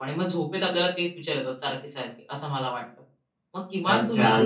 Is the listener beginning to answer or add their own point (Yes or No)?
Yes